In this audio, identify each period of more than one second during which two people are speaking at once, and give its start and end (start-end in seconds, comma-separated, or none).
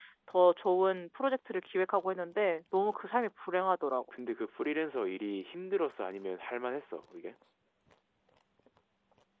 none